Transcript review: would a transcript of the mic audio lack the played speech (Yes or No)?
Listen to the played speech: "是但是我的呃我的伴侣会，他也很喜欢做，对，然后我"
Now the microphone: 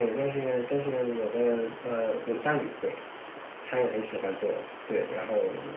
No